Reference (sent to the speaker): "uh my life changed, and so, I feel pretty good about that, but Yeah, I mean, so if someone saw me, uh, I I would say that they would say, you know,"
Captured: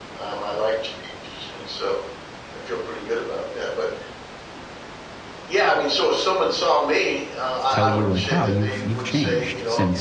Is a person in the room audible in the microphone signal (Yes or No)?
Yes